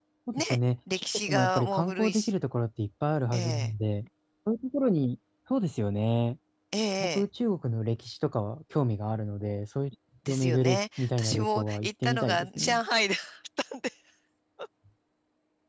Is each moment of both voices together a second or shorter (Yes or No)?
No